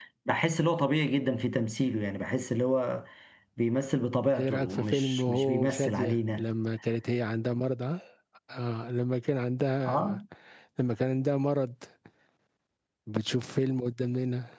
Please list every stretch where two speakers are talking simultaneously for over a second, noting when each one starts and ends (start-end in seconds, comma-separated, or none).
4.4-6.4